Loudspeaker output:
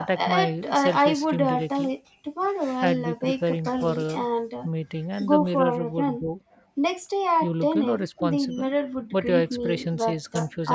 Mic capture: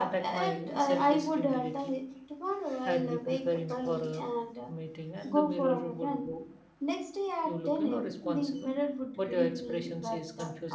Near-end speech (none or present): none